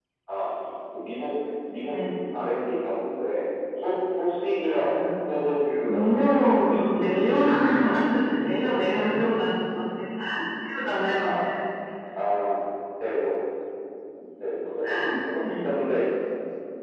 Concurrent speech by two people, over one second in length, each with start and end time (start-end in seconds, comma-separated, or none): 5.9-7.5